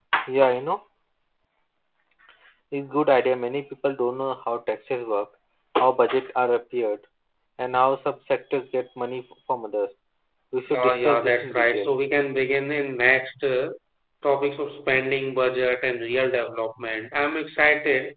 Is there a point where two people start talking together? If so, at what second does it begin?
10.7 s

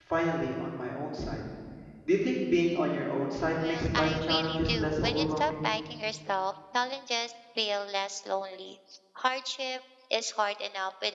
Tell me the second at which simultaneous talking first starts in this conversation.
3.6 s

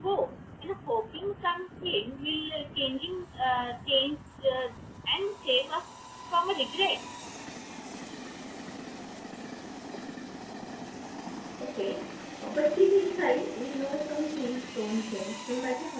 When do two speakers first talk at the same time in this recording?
none

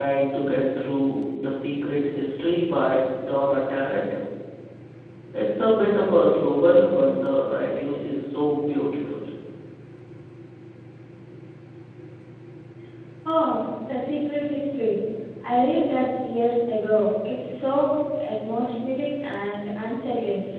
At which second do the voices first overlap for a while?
none

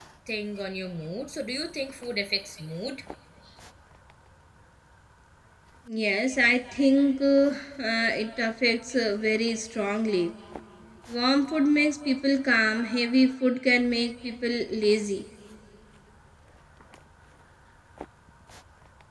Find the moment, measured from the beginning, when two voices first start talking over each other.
none

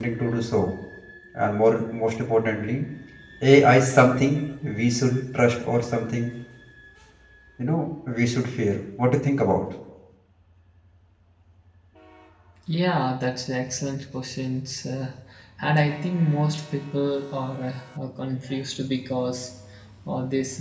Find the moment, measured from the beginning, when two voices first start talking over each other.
none

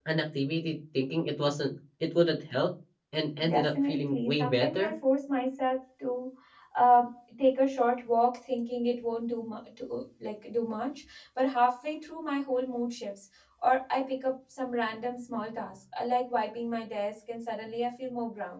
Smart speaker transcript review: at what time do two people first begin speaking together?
3.4 s

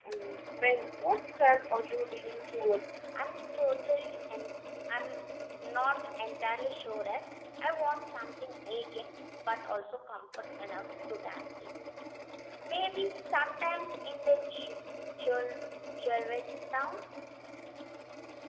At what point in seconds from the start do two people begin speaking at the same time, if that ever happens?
none

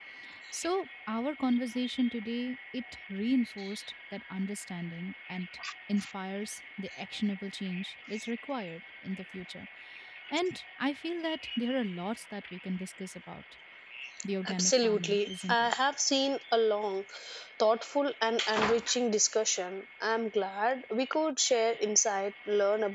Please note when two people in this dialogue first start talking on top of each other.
14.5 s

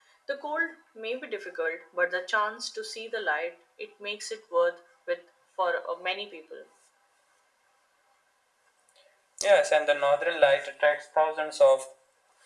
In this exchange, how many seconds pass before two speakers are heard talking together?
none

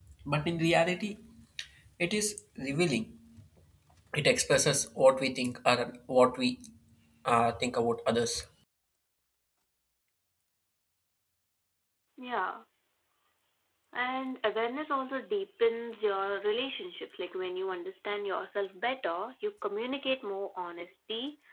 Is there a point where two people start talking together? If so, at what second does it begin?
none

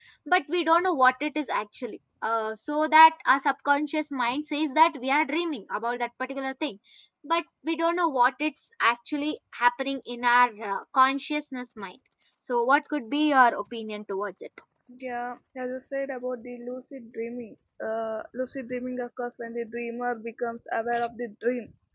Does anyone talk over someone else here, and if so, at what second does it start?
none

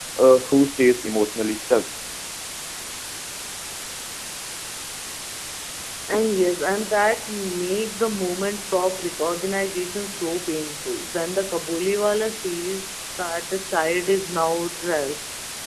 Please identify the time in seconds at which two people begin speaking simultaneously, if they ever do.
none

